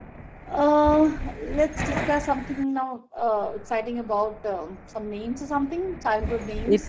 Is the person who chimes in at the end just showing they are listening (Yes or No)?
No